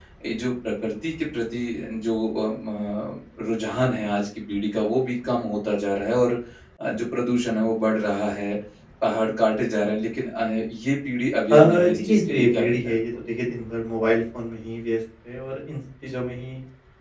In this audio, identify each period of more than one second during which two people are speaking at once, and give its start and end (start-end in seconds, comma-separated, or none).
11.5-13.0